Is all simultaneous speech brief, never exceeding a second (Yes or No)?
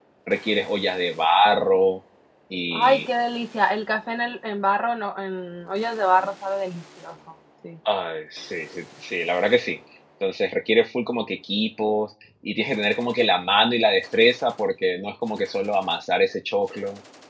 Yes